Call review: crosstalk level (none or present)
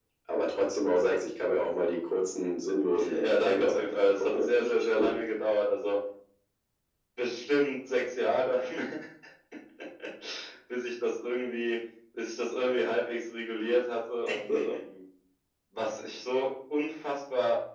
present